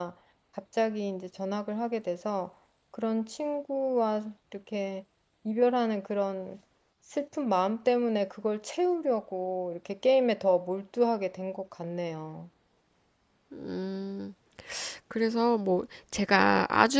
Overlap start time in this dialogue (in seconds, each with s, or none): none